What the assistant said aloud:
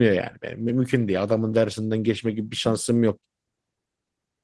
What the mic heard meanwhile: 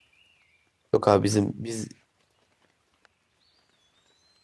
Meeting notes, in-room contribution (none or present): present